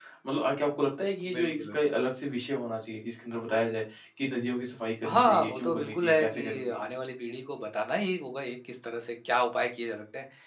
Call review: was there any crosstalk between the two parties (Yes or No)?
Yes